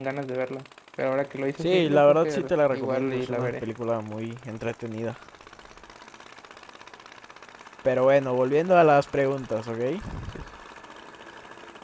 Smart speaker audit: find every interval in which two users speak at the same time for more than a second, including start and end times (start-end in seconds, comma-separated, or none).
1.6-3.6